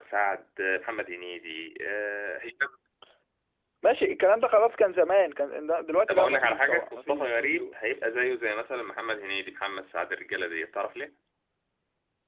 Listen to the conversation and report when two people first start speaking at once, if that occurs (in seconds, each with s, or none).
6.1 s